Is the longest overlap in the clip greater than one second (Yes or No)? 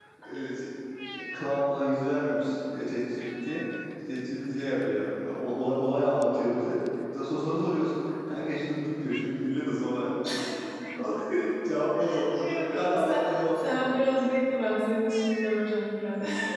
Yes